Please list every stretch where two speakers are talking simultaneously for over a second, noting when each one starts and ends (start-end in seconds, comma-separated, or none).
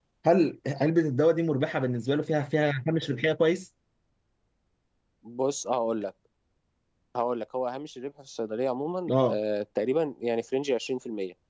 none